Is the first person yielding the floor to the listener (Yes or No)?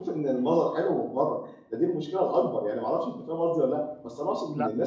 No